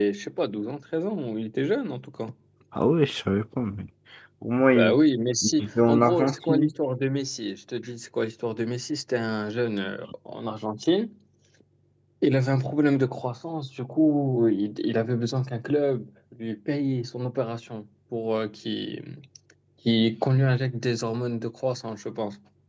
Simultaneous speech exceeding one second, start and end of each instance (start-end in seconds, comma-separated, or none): 5.4-6.7